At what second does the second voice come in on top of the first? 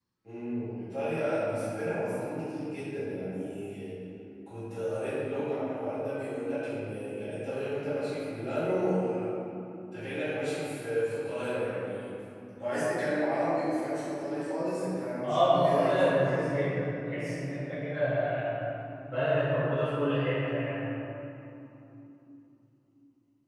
15.2 s

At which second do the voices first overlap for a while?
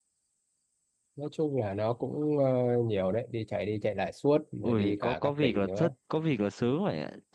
4.6 s

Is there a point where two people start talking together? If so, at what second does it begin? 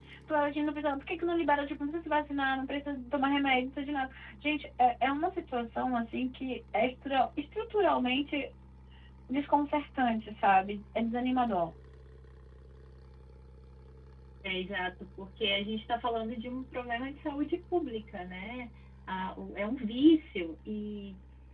none

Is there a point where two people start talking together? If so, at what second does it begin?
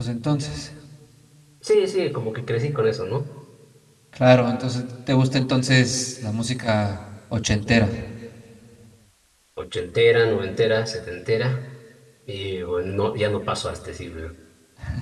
none

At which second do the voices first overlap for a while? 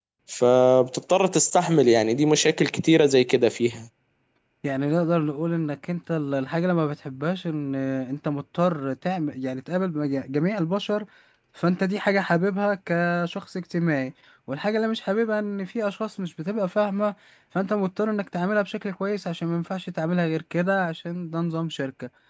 none

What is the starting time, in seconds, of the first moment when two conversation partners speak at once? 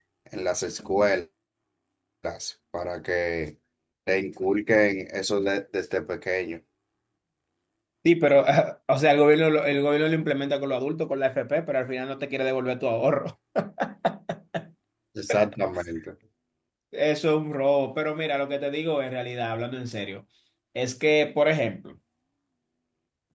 none

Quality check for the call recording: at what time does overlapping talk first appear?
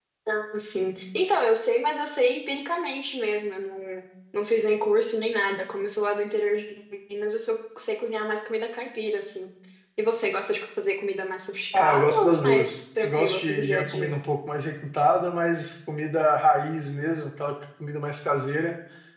11.7 s

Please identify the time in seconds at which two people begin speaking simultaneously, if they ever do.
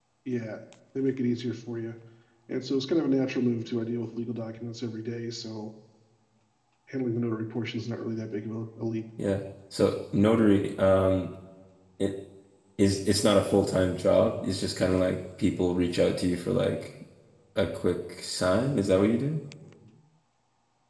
none

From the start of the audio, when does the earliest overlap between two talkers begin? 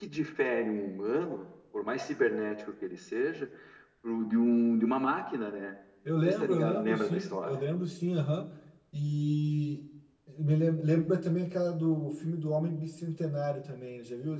6.2 s

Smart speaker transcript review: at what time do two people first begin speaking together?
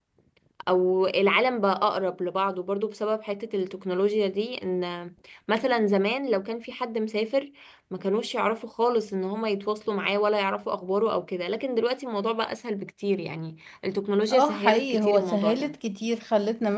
14.3 s

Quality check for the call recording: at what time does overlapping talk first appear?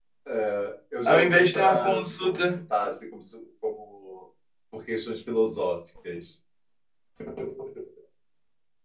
1.1 s

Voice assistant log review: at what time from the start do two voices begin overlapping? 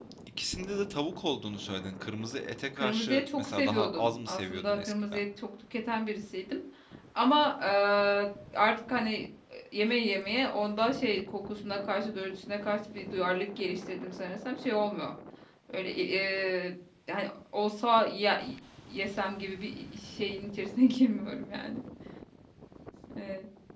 2.8 s

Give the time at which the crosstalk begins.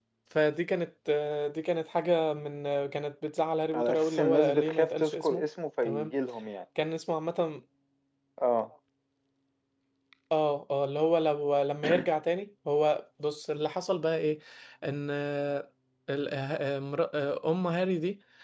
3.7 s

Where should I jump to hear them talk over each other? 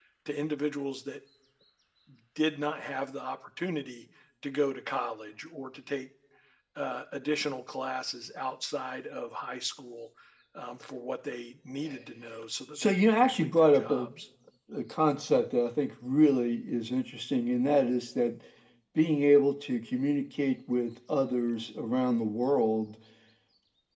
12.8 s

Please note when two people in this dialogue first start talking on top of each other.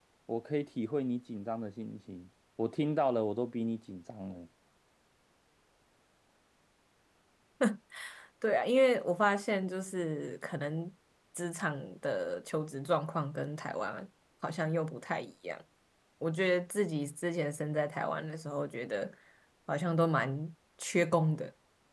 none

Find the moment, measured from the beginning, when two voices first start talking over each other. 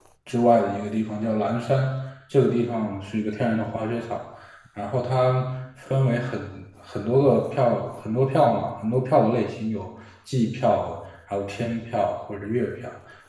none

